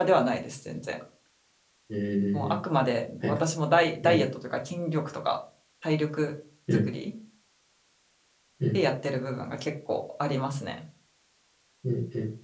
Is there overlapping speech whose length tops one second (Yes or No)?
No